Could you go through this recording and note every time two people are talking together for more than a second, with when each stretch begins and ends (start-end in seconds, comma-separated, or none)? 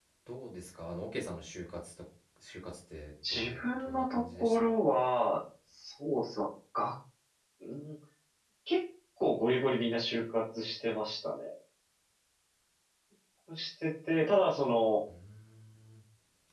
3.3-4.7